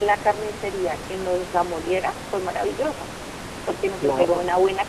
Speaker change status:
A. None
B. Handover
A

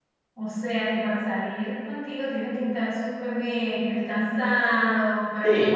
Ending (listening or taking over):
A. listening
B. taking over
B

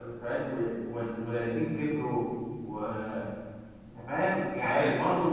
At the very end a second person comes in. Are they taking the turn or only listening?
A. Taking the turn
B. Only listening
B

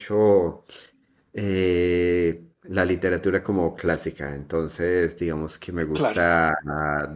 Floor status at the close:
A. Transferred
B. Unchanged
B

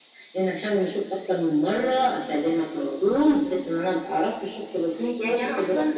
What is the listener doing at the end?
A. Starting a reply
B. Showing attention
A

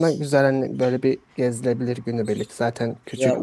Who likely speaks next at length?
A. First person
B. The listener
B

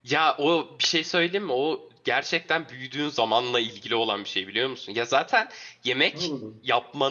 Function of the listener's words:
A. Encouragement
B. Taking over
A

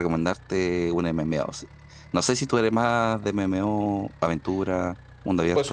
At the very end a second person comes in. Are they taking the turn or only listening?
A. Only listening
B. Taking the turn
B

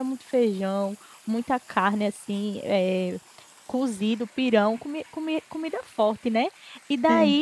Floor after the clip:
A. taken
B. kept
B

